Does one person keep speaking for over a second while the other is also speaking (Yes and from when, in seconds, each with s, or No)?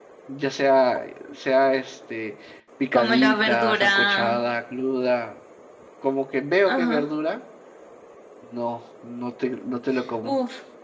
Yes, from 2.9 s